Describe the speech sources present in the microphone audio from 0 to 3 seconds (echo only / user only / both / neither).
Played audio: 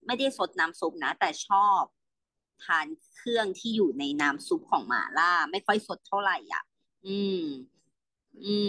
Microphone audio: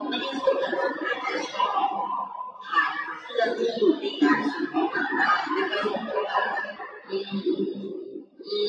echo only